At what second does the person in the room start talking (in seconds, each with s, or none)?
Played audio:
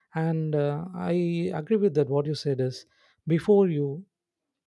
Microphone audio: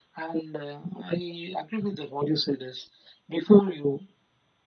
none